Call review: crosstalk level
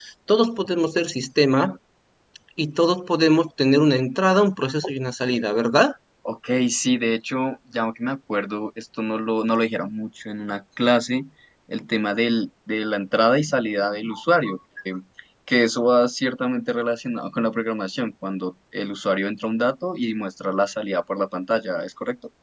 none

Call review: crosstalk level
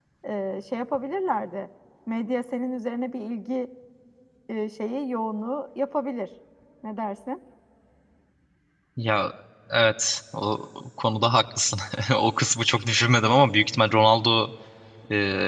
none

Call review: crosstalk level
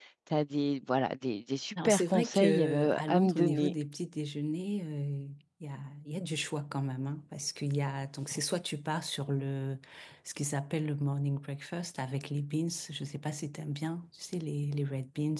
present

